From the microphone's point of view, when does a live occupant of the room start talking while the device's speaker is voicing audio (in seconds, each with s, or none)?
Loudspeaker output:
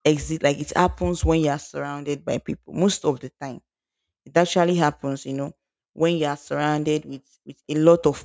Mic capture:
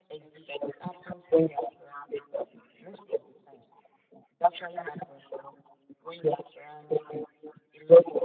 none